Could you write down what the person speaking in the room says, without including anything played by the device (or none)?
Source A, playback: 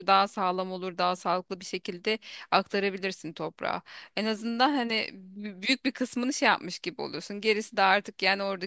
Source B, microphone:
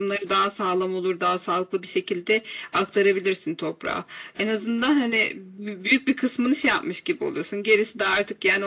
none